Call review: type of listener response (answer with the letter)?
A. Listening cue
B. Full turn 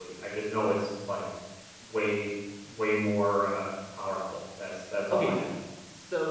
B